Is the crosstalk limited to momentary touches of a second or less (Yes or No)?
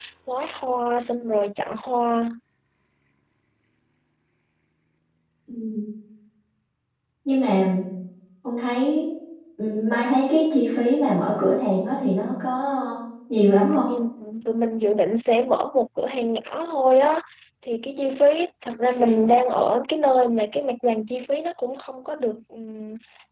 Yes